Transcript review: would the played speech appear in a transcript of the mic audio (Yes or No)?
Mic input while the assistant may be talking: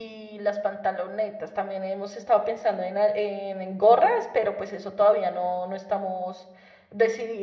No